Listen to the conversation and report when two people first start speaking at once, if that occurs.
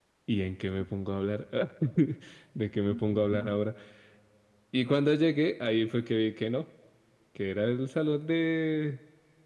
none

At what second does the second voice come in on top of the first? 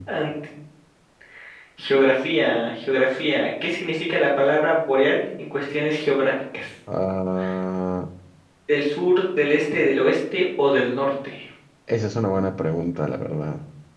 none

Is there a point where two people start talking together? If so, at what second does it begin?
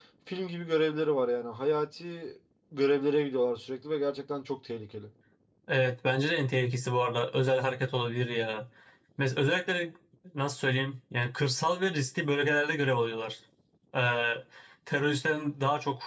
none

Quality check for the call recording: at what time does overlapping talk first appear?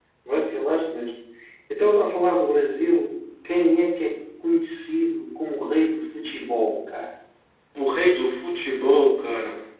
none

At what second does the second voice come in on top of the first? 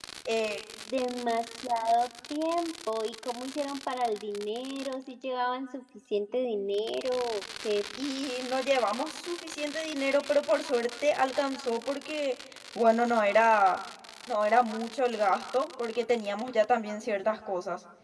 none

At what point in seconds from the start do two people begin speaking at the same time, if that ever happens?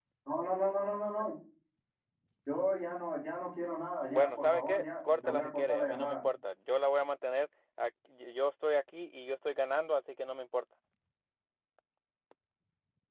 4.1 s

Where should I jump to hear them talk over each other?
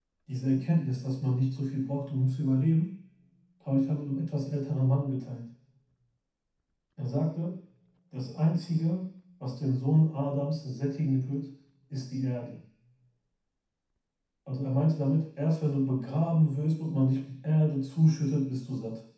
none

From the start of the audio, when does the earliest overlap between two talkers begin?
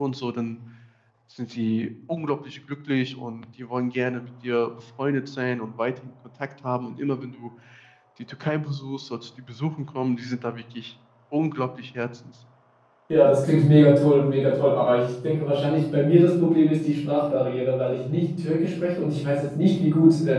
none

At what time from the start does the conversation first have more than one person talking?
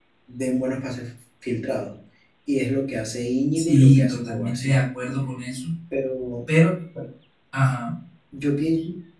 3.5 s

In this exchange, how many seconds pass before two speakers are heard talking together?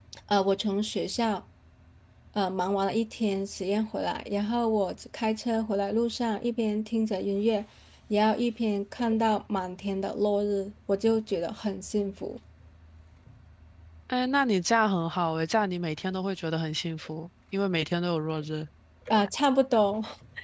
none

